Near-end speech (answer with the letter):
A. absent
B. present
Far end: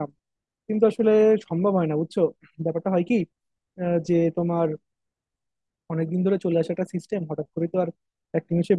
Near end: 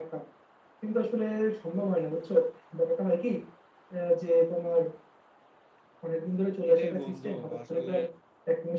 B